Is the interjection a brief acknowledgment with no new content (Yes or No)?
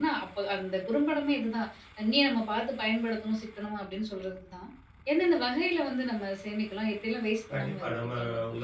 No